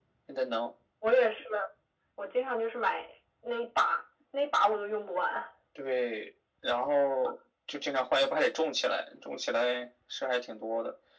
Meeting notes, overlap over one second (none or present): none